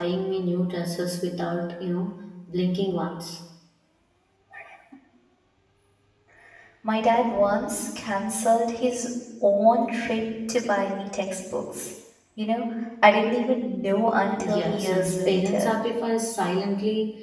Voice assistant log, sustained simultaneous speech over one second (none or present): present